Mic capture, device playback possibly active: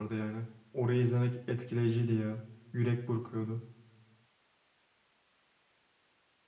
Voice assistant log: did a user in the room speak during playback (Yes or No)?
Yes